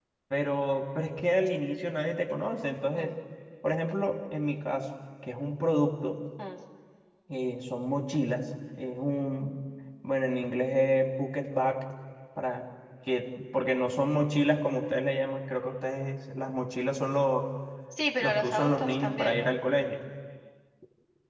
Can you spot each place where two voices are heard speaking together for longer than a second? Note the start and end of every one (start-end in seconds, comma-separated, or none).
18.2-19.6